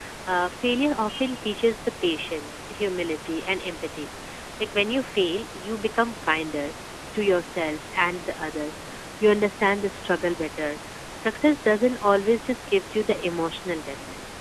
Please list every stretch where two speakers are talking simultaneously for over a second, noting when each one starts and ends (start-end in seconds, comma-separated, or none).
none